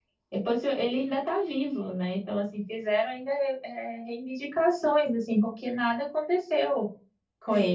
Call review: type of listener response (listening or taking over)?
taking over